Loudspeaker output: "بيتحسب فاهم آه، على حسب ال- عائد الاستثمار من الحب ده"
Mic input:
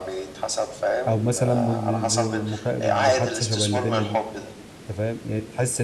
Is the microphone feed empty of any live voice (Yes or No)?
No